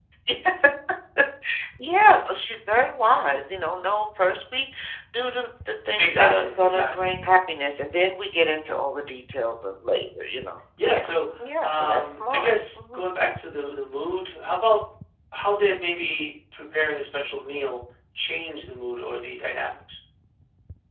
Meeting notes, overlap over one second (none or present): present